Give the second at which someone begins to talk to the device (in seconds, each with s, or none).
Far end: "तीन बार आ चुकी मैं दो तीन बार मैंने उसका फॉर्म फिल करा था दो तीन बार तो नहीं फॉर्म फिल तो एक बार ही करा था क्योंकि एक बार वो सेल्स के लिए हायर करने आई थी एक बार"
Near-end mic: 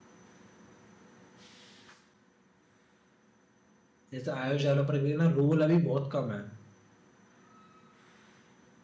4.1 s